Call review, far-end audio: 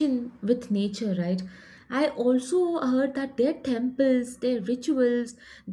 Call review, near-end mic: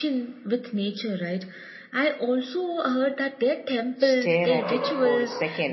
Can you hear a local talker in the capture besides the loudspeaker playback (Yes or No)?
Yes